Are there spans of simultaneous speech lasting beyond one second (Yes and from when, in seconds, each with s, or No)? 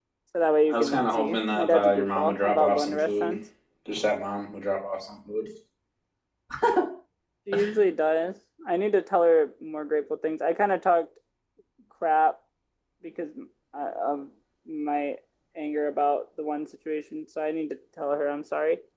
Yes, from 0.7 s